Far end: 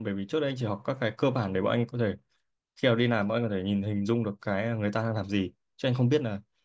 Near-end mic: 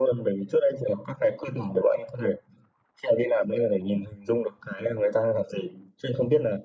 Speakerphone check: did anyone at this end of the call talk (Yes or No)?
No